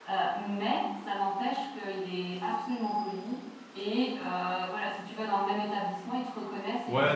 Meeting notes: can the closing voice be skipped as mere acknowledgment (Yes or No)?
No